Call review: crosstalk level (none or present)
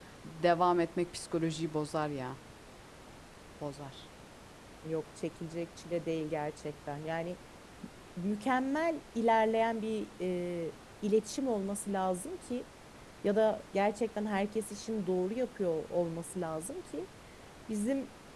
none